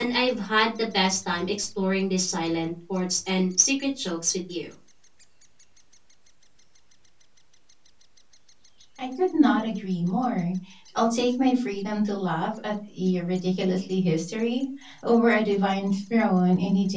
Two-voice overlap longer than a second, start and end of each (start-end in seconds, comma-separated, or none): none